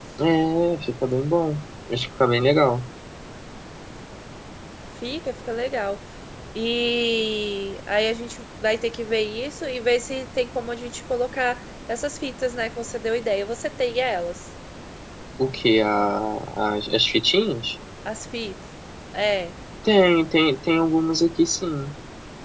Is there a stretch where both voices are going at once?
No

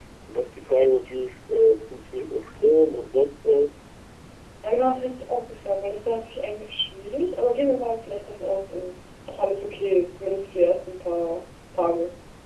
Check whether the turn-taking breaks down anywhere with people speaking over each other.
No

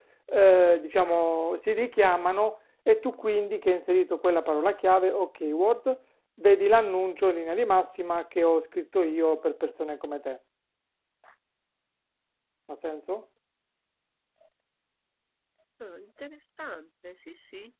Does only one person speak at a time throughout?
Yes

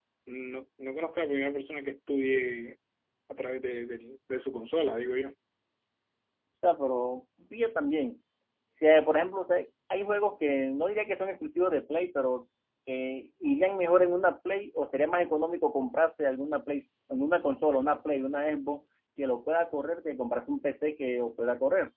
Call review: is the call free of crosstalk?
Yes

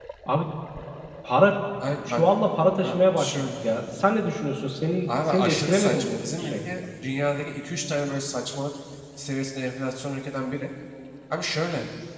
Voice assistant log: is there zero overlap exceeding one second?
No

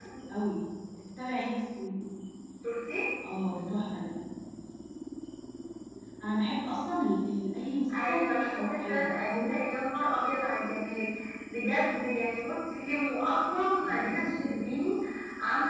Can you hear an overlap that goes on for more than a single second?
Yes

